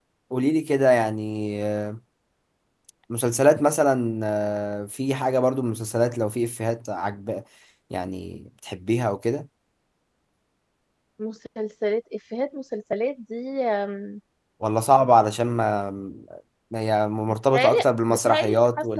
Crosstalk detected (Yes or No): Yes